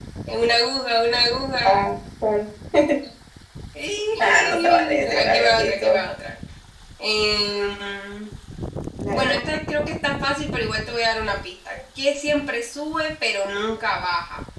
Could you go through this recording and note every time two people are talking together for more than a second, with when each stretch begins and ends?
4.2-6.0

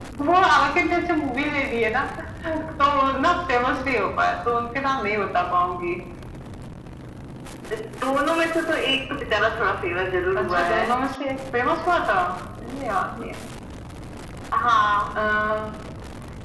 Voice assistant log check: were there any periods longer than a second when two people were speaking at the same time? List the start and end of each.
none

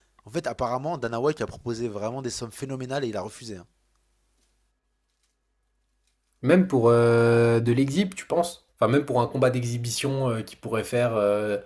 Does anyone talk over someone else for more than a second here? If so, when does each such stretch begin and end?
none

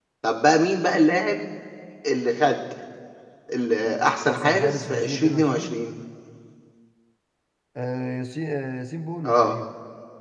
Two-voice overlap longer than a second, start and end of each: 4.3-5.8

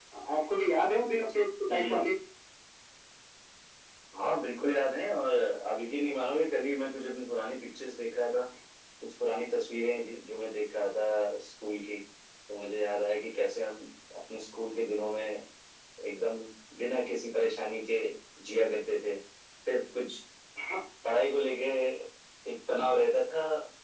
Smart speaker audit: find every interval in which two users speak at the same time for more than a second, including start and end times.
none

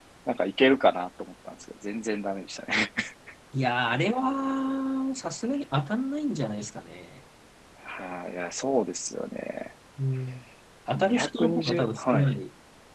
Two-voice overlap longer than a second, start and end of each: 10.9-12.4

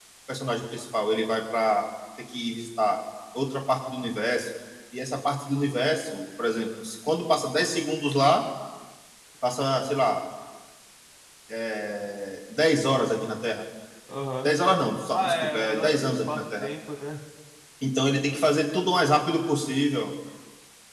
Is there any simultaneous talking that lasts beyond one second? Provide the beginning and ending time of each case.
15.1-16.7

